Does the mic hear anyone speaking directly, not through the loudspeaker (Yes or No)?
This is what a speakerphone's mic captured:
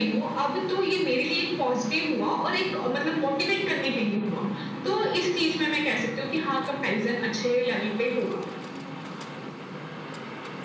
No